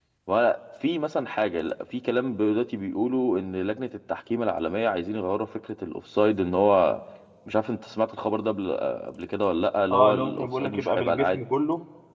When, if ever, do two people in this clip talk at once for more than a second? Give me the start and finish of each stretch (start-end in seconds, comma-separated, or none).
9.9-11.4